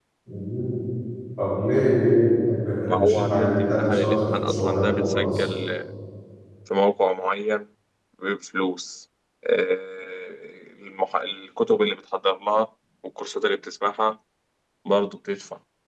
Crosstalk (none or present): present